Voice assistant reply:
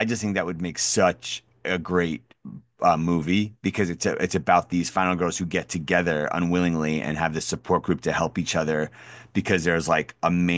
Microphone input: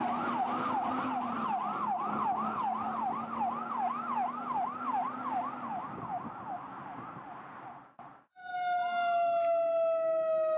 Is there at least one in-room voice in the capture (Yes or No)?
No